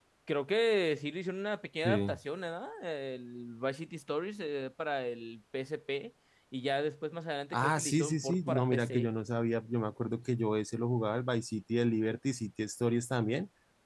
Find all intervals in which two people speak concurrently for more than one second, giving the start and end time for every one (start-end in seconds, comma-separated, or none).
7.5-9.1